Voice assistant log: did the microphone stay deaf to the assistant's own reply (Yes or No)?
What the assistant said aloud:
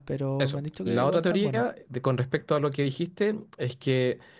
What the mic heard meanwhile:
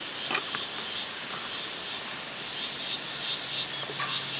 Yes